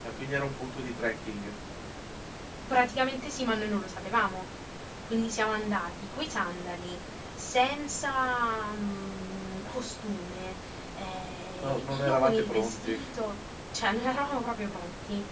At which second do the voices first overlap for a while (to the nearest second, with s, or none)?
12 s